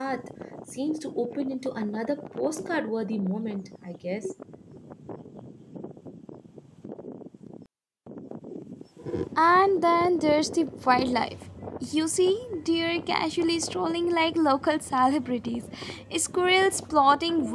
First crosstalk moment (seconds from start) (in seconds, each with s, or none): none